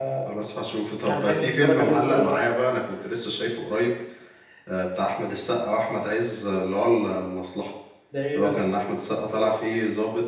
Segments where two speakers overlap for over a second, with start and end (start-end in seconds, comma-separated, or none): 1.0-2.4